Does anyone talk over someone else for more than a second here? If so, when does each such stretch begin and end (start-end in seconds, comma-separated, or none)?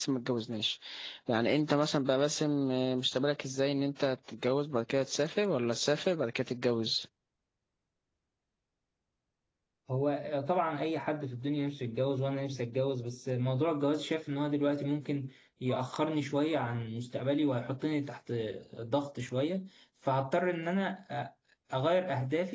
none